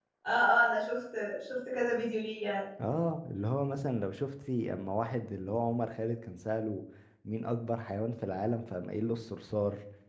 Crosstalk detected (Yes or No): No